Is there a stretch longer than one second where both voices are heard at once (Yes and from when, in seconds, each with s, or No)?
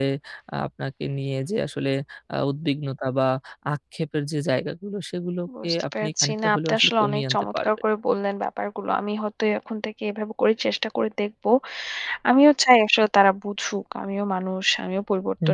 Yes, from 5.5 s